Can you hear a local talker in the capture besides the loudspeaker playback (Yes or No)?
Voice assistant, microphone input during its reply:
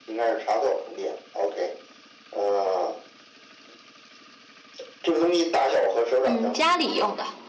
Yes